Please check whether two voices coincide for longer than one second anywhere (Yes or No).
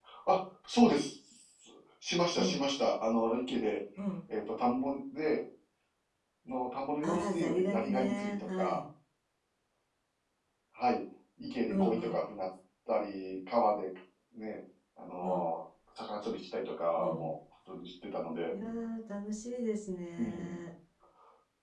Yes